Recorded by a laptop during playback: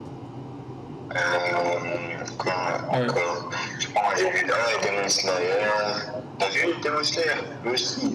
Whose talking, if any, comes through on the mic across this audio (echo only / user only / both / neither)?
both